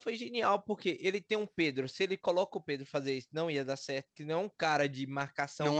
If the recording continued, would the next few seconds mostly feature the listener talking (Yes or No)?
Yes